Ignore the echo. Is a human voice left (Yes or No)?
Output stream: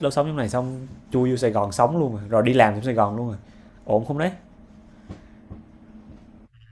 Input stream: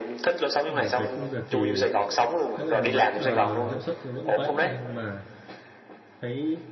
Yes